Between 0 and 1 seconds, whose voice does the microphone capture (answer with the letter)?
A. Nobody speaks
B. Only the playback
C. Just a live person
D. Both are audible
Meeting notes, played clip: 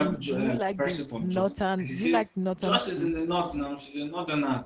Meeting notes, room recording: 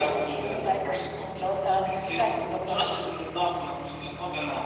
B